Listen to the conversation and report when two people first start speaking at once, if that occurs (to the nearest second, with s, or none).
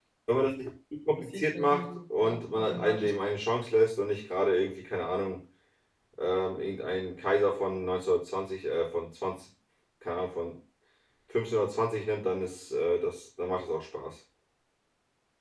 1 s